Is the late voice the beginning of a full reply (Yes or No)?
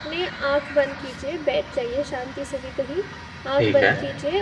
No